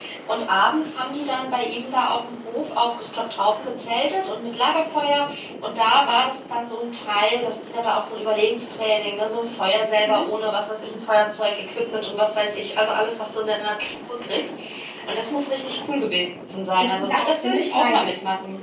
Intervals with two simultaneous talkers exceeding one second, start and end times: 16.8-18.1

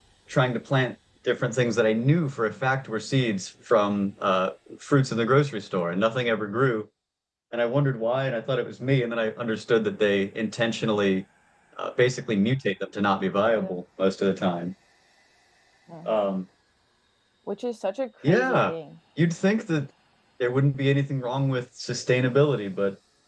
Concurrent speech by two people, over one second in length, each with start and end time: none

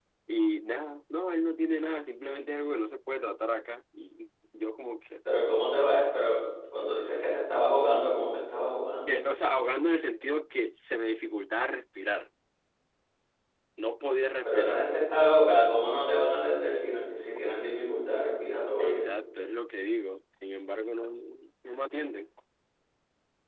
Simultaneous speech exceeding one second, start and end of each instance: none

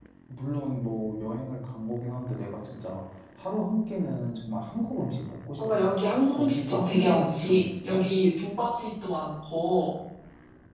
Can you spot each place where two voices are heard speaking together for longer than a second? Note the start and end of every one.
6.3-8.0

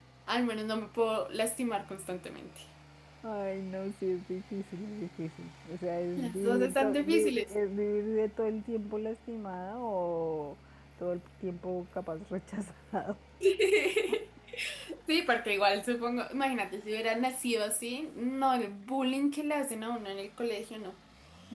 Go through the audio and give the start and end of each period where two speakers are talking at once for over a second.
6.2-7.5

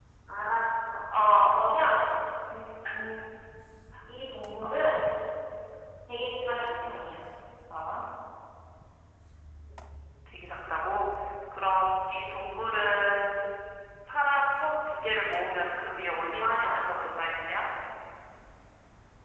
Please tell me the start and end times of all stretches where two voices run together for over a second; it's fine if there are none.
none

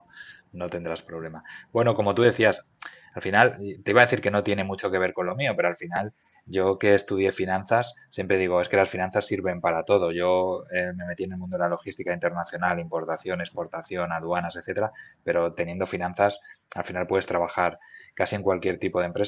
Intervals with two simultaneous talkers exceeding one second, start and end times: none

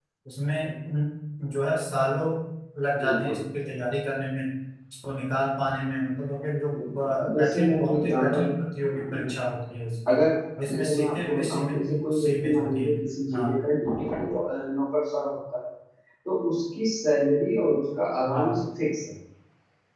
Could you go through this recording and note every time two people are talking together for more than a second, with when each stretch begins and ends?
7.0-8.5, 10.7-13.0

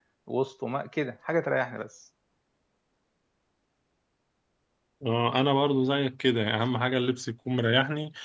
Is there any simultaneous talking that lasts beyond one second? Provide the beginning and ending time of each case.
none

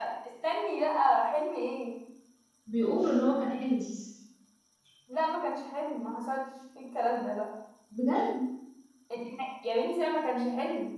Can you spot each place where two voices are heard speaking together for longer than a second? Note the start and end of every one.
none

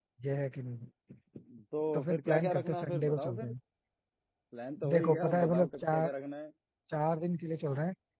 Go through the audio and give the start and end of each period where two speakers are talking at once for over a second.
1.9-3.5, 4.9-6.1

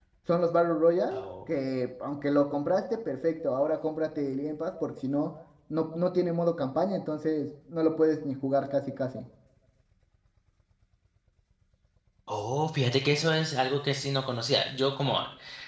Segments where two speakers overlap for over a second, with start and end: none

